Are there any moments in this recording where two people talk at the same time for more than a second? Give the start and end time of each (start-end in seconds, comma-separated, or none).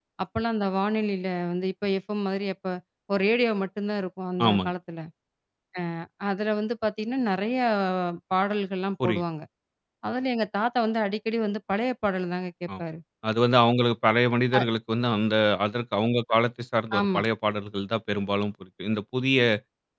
none